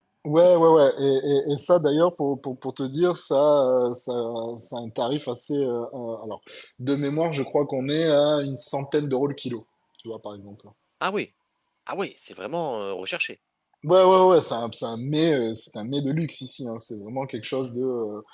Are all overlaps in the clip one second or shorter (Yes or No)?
Yes